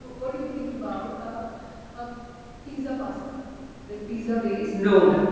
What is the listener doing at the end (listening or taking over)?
listening